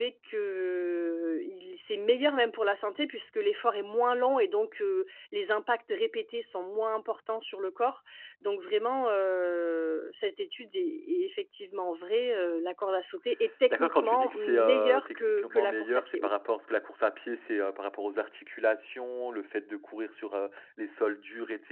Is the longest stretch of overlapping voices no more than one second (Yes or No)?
No